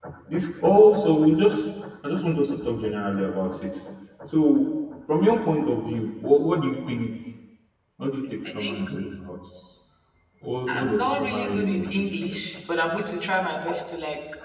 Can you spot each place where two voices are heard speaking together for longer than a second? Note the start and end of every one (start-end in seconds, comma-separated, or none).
10.8-12.4